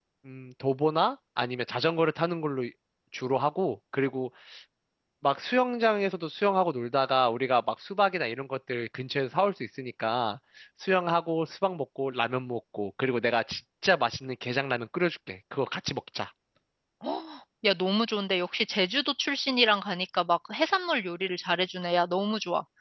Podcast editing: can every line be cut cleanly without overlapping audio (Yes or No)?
Yes